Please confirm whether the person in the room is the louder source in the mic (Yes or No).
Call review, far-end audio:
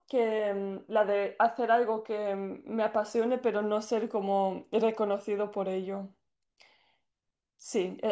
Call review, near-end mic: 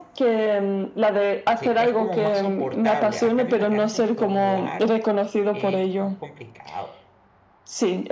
No